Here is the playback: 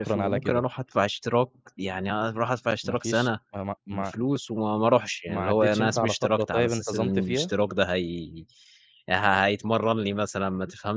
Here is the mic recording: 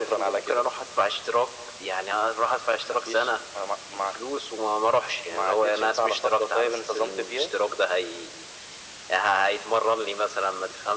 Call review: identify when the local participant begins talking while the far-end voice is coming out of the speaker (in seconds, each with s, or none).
none